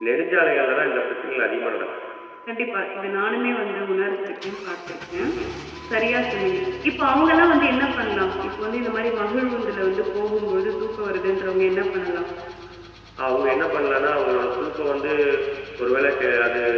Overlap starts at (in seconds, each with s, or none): none